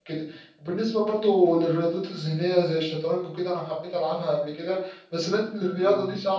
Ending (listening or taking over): listening